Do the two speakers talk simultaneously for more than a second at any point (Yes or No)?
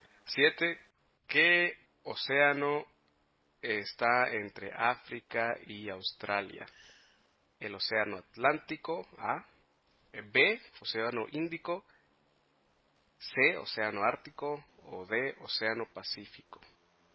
No